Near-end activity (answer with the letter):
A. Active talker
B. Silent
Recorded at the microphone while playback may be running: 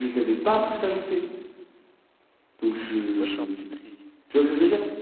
A